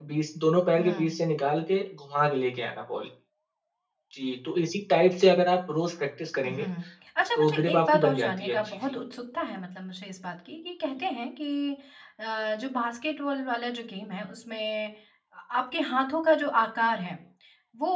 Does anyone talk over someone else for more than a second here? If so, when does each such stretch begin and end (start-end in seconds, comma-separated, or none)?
7.4-8.8